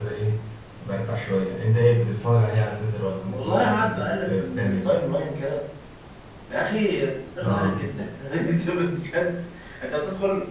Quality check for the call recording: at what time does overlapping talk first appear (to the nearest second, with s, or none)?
3 s